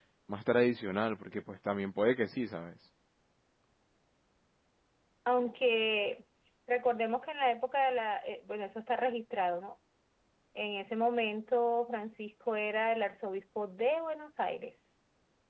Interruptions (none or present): none